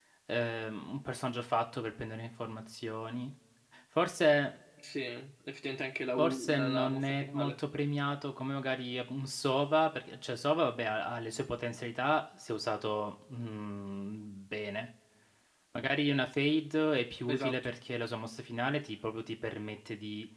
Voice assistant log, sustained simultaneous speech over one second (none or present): present